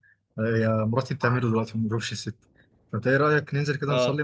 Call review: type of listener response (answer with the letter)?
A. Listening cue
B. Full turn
A